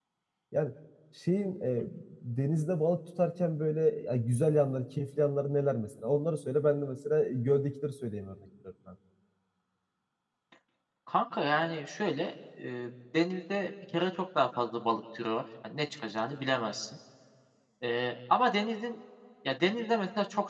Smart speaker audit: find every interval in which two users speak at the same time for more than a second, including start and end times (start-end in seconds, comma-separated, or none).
none